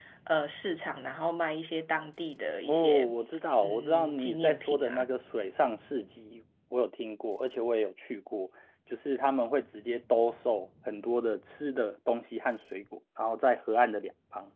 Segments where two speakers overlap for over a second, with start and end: 3.6-5.0

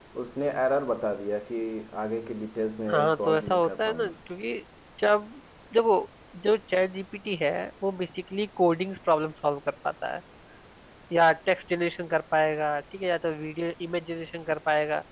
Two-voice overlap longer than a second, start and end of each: 2.9-4.1

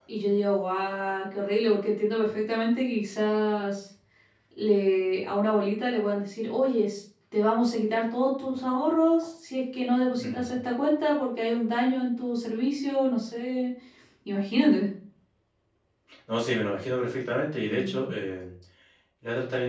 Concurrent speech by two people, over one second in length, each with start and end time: none

